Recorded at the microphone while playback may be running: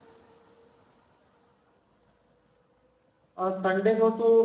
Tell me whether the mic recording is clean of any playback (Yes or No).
Yes